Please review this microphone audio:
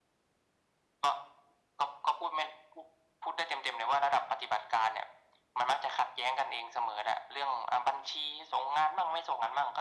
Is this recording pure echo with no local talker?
Yes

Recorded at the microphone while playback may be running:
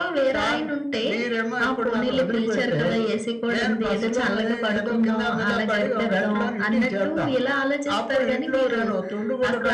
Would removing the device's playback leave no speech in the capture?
Yes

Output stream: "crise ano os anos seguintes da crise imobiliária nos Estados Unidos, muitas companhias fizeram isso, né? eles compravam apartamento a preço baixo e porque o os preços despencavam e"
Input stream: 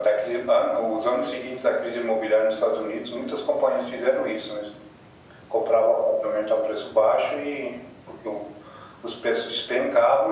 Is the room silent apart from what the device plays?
Yes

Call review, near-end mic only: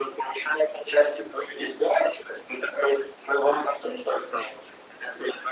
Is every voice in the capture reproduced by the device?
Yes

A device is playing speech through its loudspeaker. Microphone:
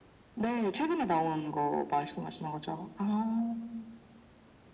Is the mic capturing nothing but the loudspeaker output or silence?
No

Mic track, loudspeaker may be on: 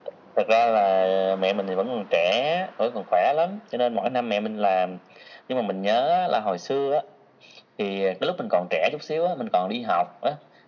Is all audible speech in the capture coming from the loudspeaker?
Yes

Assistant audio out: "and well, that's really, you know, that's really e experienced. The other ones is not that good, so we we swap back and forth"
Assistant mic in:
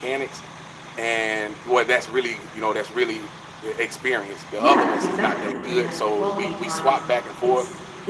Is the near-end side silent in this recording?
No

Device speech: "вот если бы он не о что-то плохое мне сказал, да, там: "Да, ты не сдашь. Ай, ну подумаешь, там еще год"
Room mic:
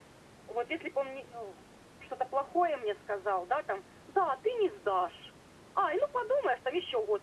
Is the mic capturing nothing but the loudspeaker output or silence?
Yes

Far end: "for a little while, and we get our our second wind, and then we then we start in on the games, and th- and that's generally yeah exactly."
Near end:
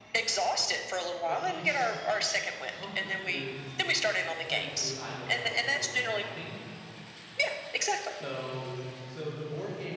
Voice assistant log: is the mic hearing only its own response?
No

